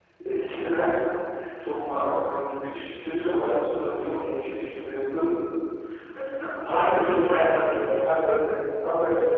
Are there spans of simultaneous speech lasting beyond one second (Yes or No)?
Yes